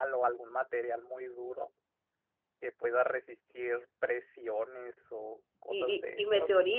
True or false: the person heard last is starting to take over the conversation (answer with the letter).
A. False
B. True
B